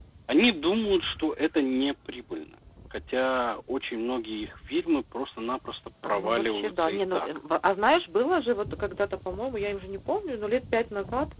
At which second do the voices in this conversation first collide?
6.0 s

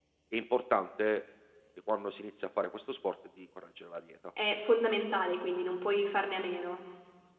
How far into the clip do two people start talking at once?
none

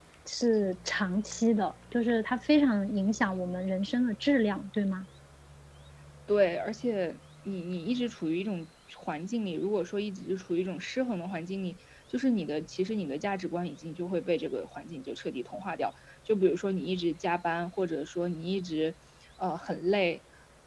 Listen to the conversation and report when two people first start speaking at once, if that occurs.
none

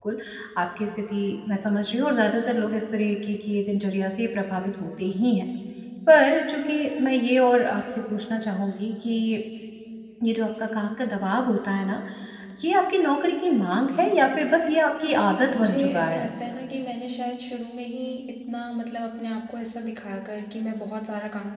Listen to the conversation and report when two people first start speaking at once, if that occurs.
15.1 s

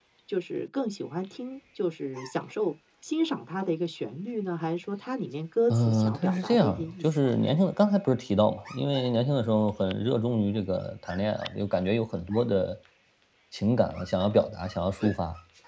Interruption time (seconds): 5.7 s

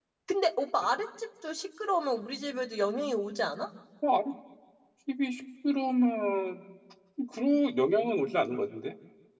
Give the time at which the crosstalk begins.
none

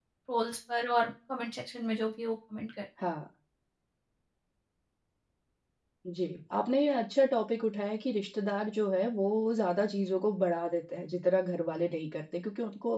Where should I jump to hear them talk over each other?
none

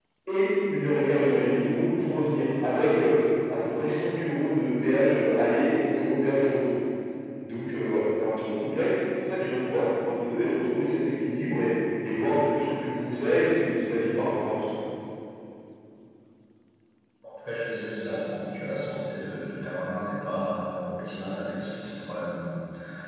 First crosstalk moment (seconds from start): none

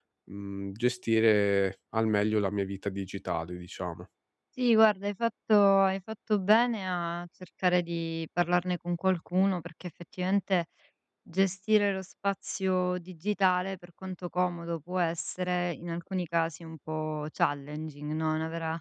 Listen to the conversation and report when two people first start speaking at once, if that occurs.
none

